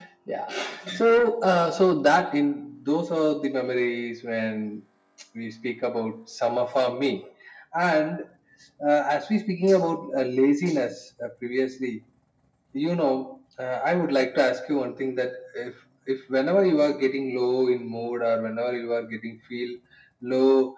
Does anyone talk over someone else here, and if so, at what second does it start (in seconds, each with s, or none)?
none